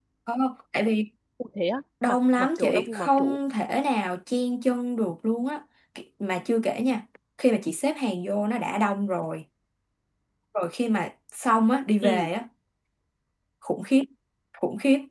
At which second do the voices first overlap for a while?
2.1 s

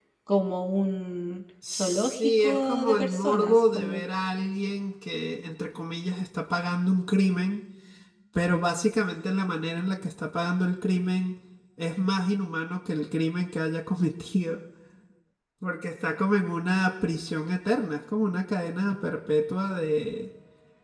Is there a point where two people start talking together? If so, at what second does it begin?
1.6 s

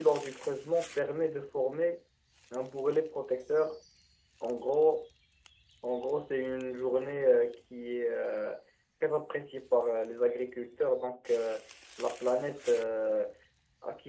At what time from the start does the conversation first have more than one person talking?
none

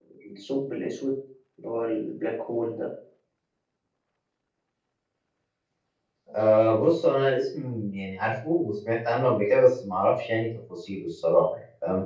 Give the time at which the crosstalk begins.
none

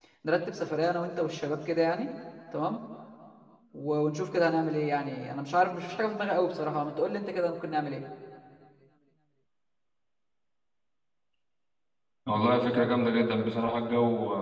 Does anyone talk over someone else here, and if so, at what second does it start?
none

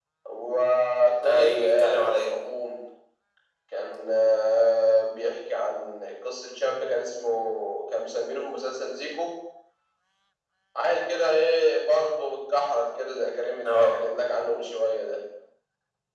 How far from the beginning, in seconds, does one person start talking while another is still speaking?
1.1 s

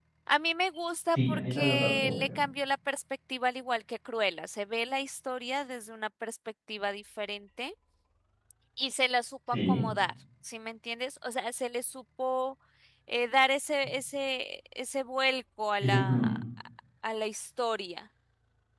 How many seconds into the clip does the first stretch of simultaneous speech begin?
1.1 s

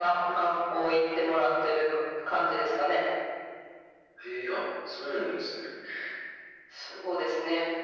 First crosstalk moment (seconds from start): none

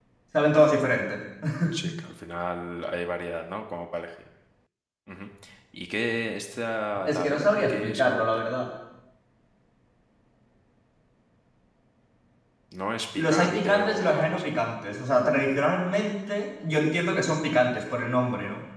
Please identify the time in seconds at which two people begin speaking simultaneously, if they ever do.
7.1 s

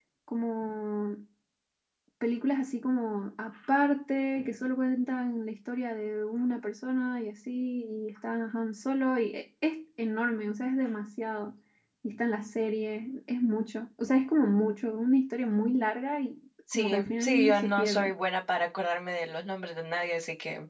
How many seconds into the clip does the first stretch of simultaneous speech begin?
16.7 s

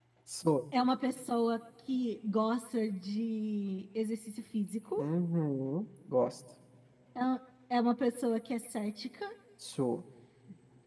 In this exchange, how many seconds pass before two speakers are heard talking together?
none

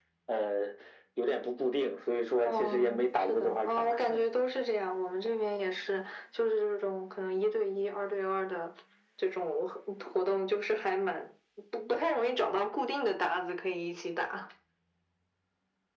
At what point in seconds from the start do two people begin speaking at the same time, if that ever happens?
2.4 s

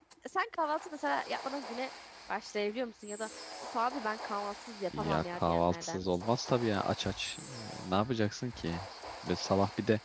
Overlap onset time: 4.9 s

